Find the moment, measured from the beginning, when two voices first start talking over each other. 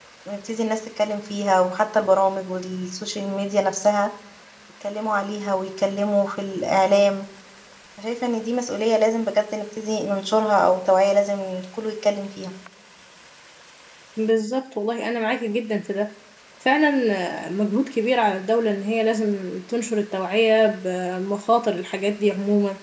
none

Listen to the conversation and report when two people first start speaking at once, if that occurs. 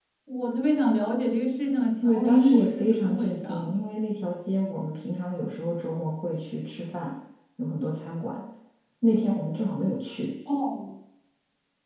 2.0 s

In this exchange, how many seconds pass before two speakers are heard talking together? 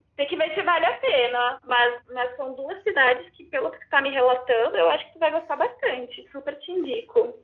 none

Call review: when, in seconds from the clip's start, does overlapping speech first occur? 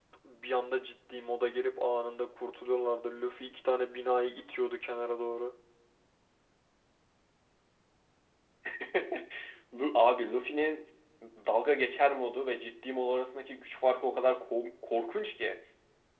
none

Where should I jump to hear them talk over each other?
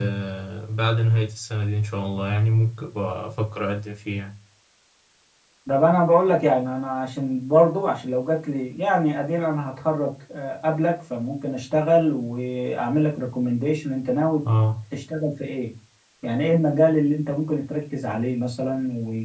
none

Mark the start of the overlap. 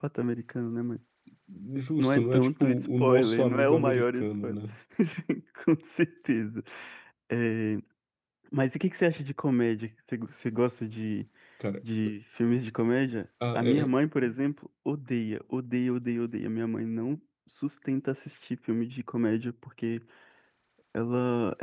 2.0 s

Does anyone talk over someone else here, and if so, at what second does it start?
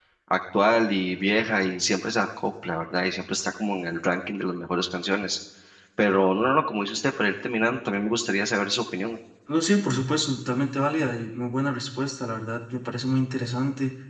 none

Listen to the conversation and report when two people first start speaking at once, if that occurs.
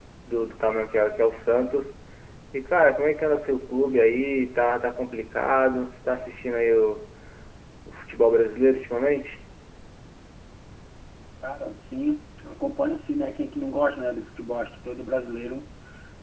none

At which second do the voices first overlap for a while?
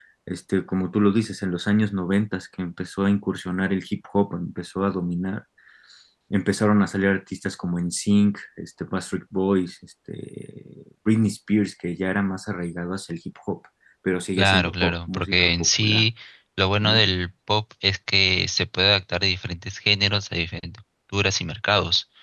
14.4 s

